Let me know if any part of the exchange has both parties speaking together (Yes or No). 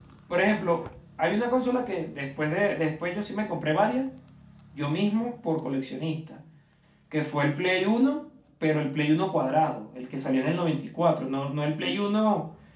No